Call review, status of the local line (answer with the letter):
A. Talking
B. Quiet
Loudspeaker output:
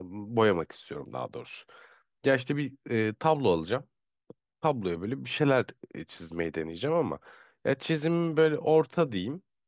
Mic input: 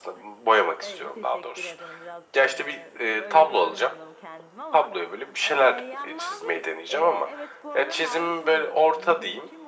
A